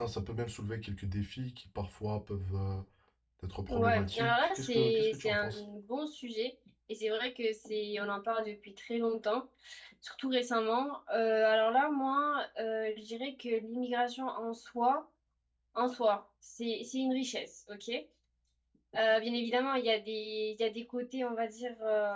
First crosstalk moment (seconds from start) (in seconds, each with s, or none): 3.7 s